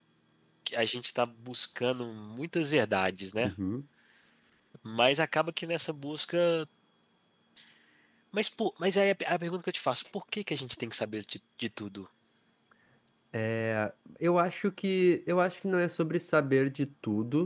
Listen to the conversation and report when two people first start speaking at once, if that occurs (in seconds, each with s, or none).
none